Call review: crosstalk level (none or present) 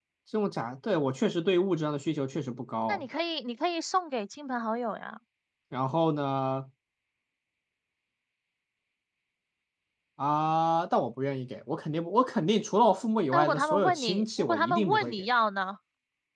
present